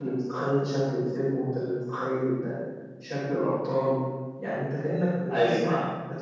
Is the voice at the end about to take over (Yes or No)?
No